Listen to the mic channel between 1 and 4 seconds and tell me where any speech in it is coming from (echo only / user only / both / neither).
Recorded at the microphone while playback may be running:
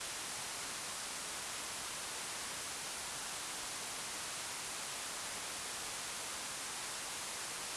neither